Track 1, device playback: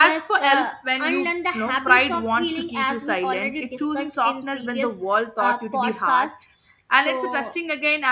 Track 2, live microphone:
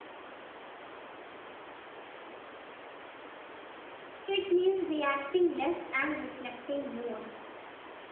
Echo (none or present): none